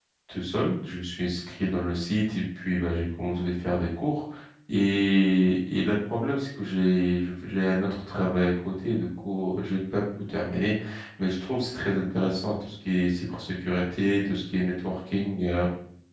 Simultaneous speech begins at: none

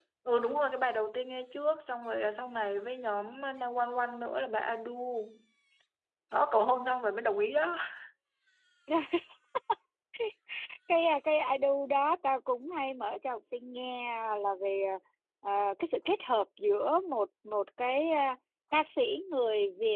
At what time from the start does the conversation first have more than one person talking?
none

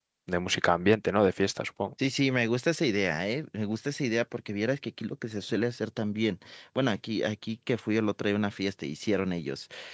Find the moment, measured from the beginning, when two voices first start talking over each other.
none

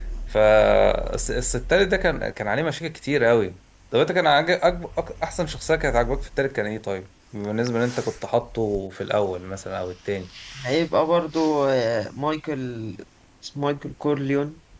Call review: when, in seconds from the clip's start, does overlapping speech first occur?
none

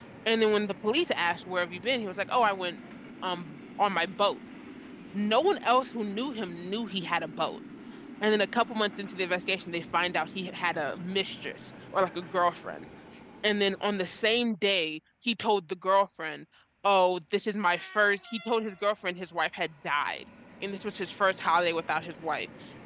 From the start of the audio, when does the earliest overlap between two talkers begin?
none

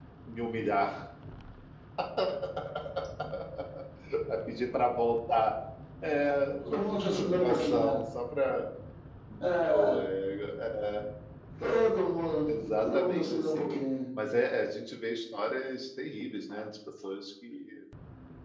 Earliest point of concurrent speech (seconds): 7 s

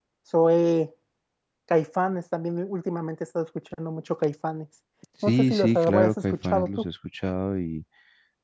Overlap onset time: 5 s

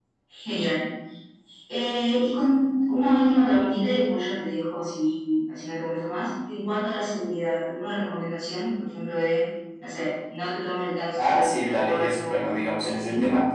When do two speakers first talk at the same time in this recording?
11 s

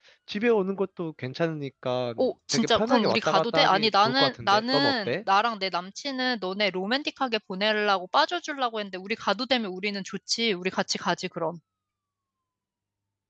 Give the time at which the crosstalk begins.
3 s

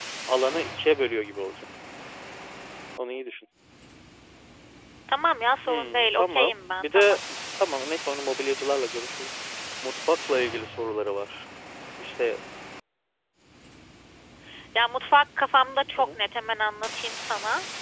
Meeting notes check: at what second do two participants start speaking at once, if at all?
6 s

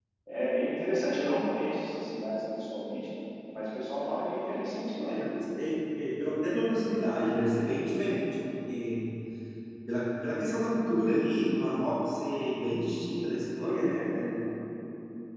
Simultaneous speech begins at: none

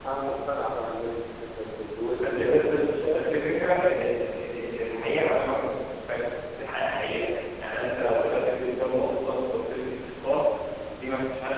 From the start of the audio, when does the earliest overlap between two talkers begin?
2 s

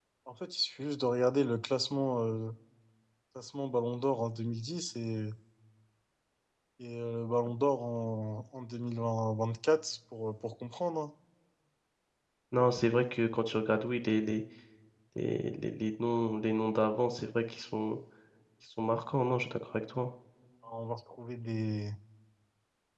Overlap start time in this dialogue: none

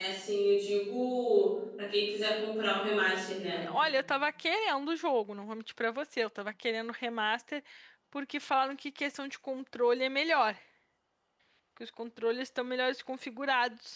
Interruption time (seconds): none

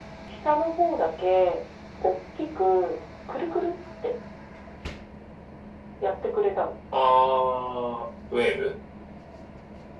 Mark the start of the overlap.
none

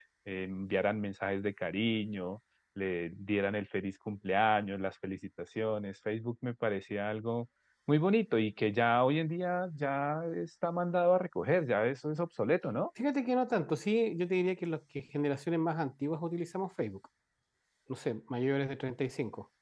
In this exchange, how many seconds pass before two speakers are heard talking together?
none

